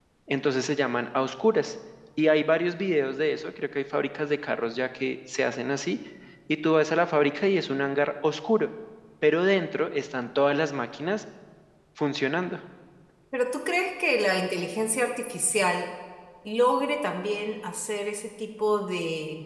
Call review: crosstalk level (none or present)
none